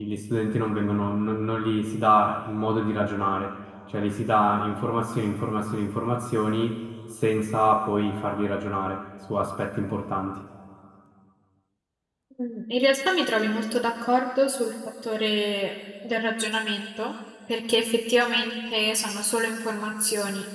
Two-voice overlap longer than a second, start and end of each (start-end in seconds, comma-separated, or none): none